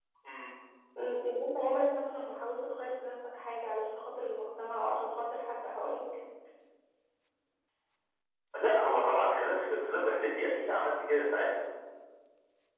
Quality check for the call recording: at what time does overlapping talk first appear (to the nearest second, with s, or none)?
none